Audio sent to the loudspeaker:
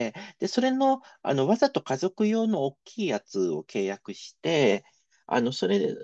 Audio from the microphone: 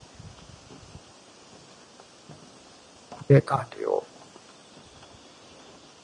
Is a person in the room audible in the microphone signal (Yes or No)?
Yes